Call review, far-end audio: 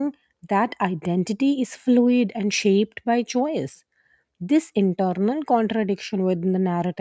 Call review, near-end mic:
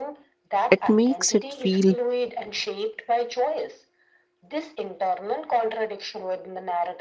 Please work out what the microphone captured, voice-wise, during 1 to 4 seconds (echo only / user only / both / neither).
both